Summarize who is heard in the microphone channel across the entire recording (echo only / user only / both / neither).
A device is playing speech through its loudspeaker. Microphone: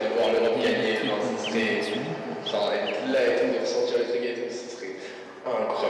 both